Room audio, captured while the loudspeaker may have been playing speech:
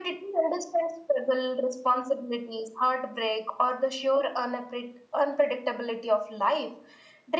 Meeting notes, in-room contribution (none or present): none